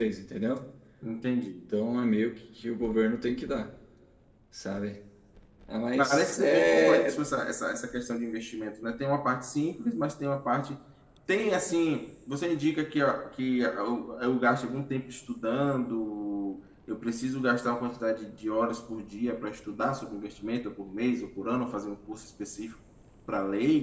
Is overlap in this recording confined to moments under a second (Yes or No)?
No